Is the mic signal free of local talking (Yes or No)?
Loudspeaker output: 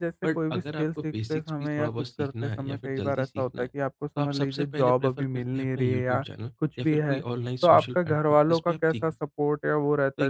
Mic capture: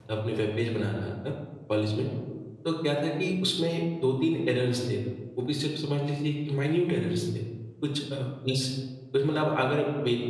No